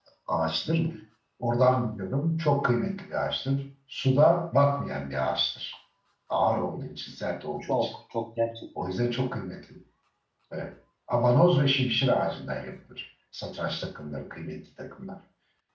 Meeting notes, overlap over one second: none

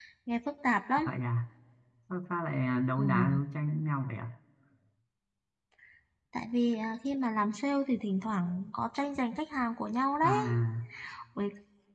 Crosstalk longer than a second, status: none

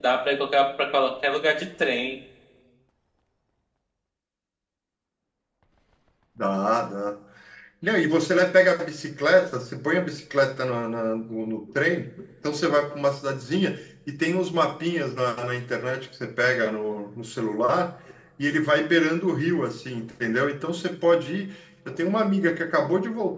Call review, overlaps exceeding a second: none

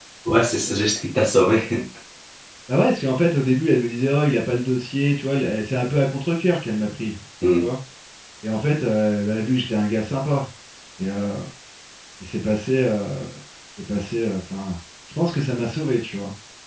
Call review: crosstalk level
none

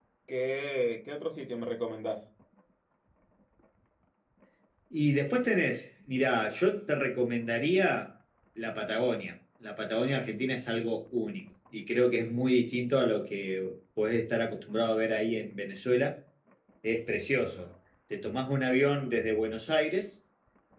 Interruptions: none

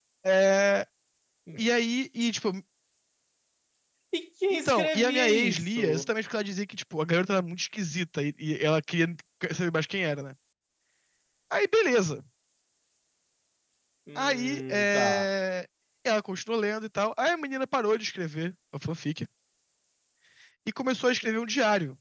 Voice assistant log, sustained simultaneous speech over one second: present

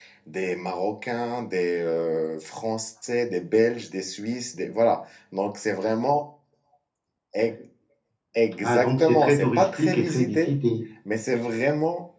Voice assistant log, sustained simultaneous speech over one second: present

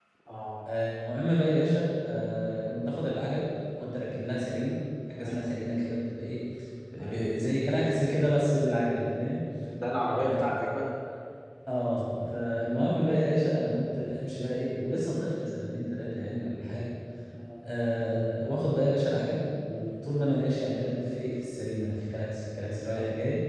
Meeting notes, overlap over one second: none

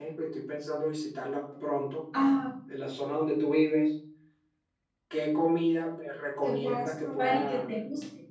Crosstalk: present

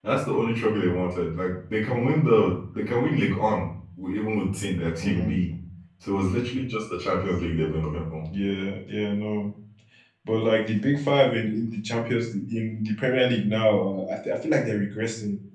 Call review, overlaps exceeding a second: none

